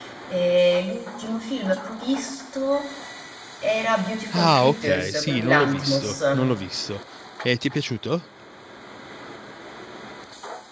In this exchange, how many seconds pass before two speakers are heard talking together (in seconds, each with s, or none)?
4.4 s